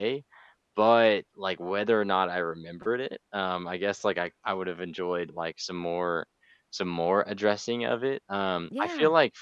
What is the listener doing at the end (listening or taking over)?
listening